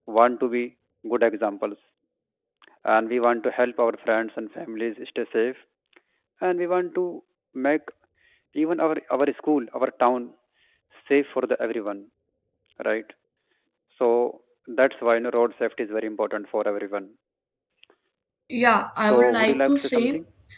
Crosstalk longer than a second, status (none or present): present